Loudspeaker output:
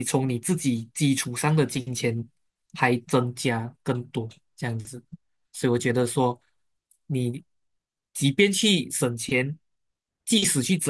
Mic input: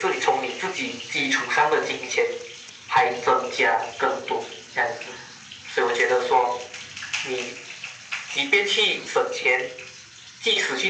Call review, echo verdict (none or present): present